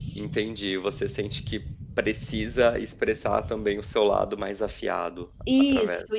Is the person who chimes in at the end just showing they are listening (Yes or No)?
No